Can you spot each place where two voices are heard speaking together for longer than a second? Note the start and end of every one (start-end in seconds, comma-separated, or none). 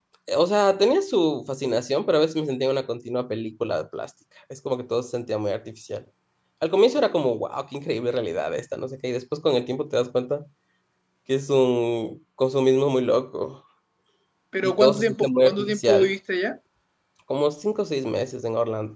14.6-16.1